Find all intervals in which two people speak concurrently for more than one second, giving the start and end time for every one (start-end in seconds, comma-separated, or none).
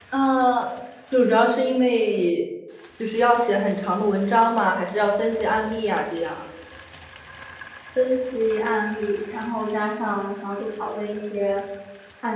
none